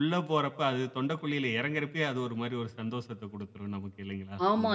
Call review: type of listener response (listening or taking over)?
taking over